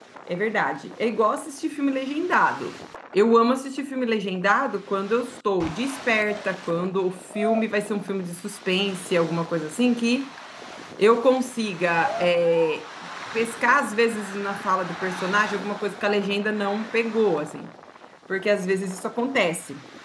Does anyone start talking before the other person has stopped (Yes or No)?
No